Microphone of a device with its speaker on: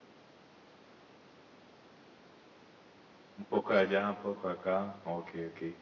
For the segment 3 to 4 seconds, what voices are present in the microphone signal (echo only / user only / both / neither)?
user only